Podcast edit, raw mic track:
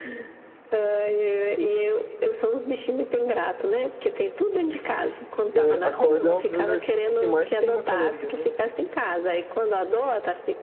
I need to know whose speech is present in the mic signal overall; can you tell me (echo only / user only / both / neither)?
both